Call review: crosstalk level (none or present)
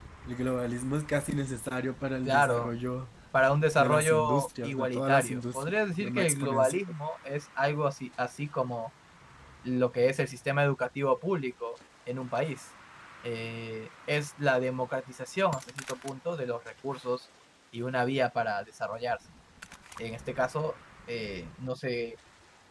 present